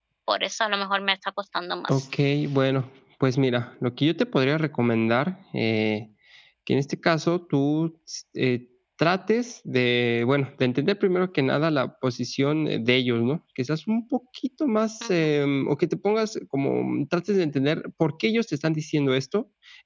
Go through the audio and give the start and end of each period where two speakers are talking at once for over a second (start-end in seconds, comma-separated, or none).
none